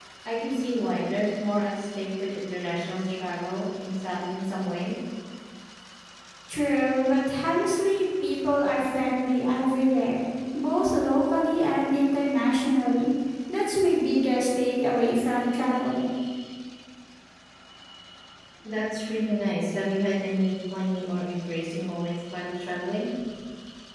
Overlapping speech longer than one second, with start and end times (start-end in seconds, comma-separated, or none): none